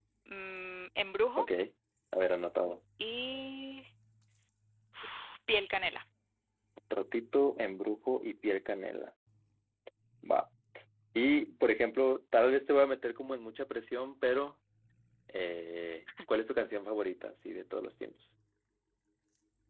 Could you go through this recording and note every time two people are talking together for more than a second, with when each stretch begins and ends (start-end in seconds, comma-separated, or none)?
none